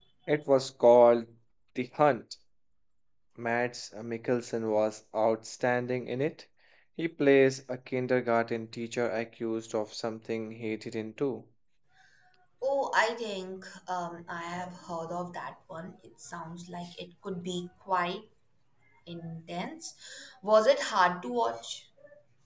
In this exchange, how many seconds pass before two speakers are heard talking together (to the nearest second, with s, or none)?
none